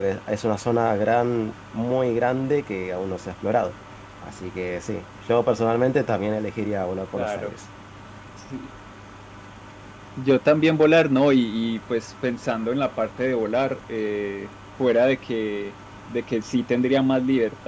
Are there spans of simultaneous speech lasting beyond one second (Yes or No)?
No